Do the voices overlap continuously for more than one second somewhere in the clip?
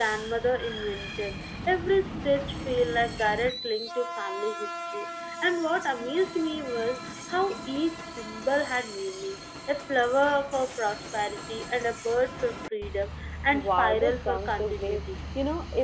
Yes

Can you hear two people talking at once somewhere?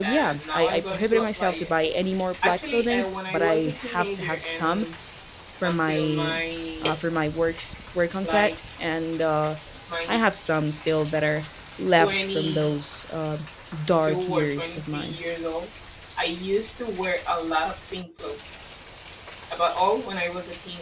Yes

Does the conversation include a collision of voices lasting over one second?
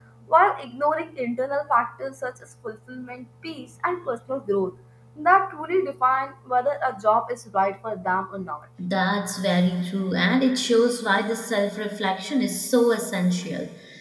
No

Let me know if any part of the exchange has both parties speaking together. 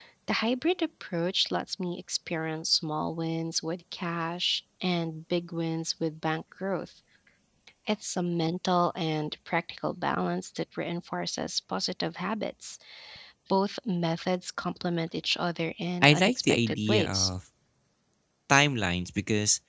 Yes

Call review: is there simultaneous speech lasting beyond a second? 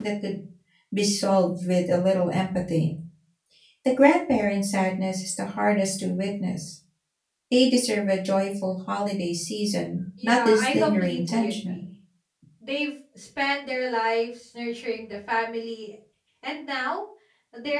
Yes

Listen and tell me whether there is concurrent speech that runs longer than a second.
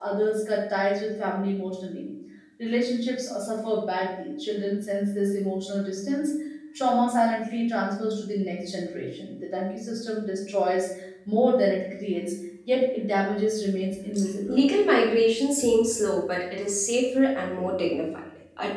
No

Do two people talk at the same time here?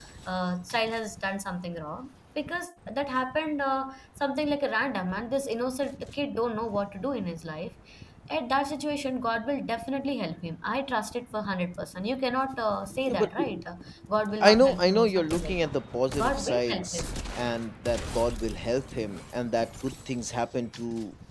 Yes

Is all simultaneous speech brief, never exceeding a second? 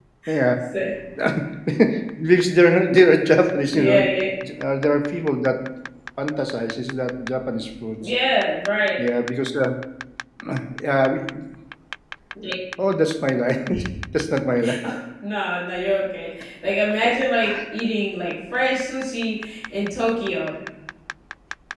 Yes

